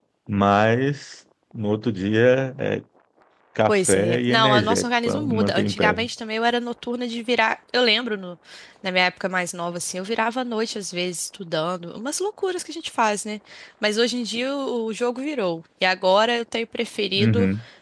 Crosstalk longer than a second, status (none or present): present